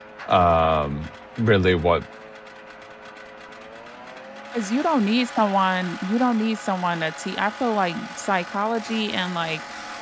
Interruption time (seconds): none

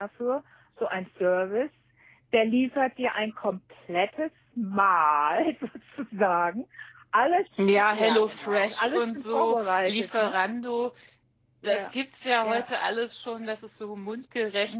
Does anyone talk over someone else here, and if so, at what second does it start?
7.6 s

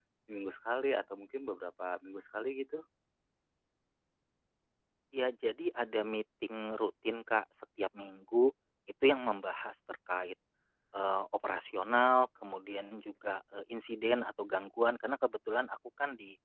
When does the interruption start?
none

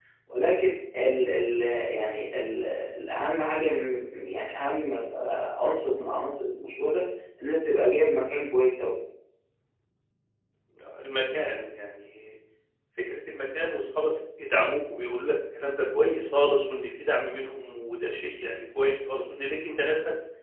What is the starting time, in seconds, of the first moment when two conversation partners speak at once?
none

